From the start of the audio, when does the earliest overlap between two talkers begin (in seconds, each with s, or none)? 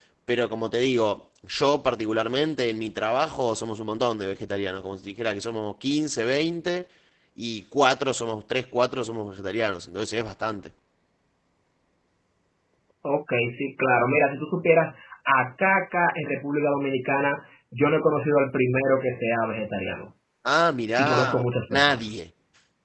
21.0 s